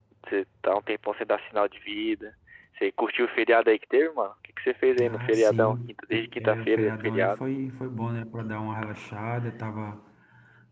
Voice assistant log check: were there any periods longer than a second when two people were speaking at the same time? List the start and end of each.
5.0-7.4

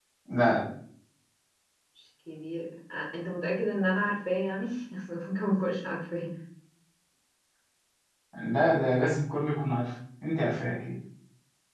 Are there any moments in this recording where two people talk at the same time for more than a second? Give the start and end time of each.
none

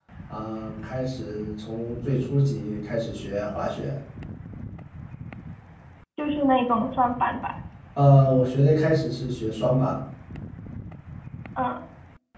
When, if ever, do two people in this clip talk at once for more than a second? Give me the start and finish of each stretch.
none

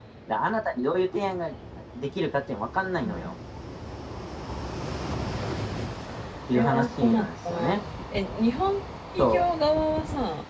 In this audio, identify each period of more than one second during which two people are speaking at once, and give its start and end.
6.5-7.8

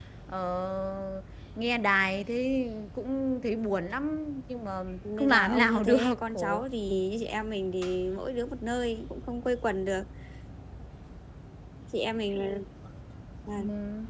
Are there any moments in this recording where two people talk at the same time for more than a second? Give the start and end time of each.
5.2-6.6

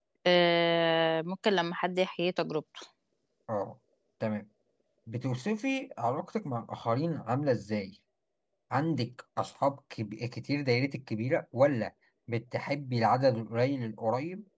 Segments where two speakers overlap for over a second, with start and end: none

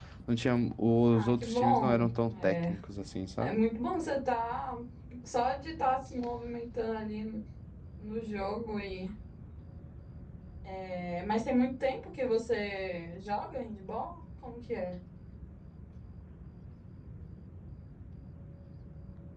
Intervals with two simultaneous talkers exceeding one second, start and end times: 1.1-2.7

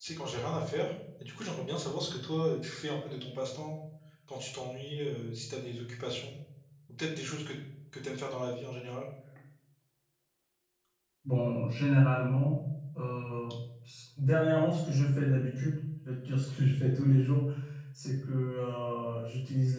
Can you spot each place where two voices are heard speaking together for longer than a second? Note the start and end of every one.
none

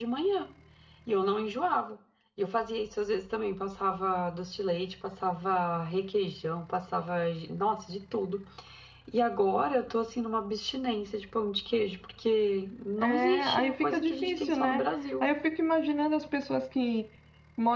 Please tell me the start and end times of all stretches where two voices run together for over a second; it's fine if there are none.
13.0-14.8

